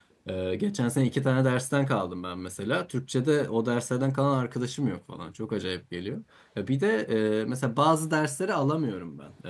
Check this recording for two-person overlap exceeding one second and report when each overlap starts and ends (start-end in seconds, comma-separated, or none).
none